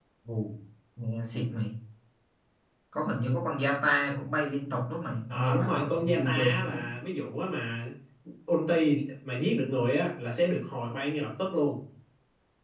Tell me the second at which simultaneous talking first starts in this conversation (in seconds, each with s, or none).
5.3 s